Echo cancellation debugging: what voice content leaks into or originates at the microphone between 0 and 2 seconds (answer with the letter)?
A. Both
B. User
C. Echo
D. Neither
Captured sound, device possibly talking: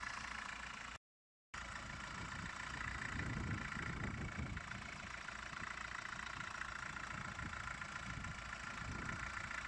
D